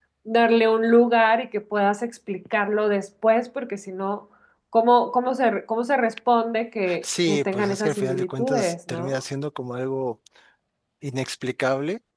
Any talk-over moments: Yes, from 6.9 s

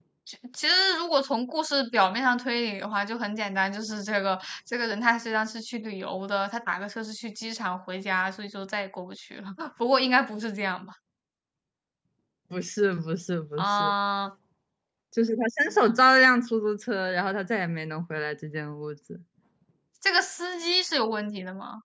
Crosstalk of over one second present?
No

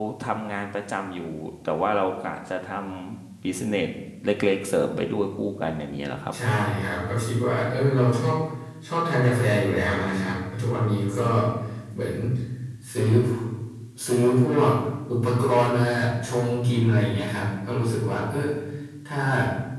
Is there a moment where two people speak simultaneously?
No

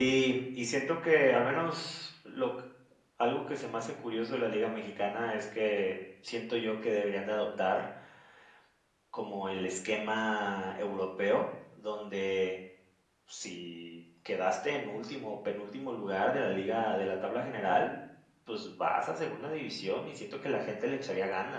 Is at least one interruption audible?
No

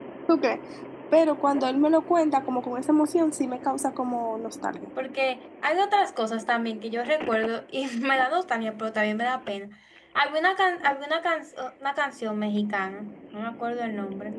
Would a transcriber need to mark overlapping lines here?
No

